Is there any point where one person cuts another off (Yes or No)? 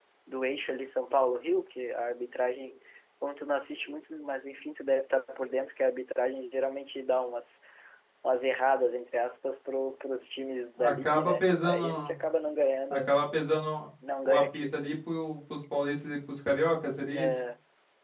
Yes